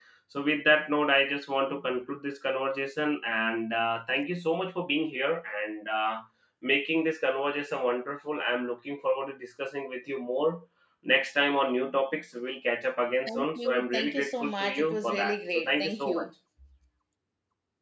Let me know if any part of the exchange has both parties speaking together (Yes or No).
Yes